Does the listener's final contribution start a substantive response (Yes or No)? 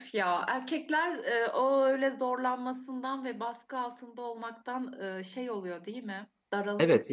Yes